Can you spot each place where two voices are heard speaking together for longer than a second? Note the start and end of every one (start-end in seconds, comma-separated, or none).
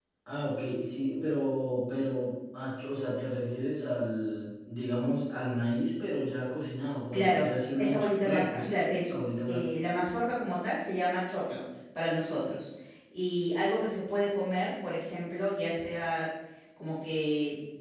7.1-9.1